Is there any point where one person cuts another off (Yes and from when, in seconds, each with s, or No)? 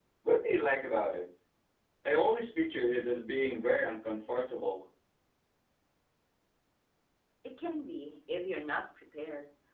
No